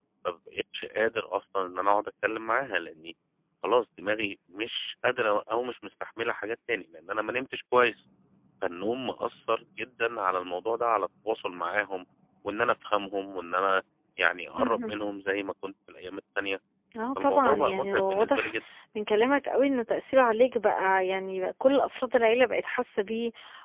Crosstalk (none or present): present